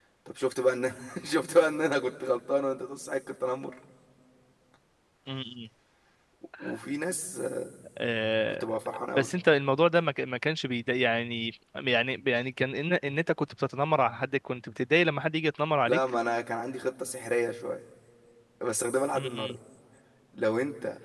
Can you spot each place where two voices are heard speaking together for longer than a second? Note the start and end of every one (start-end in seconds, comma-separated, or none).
none